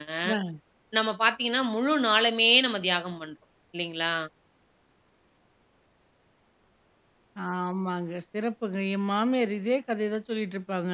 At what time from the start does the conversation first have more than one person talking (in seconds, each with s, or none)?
none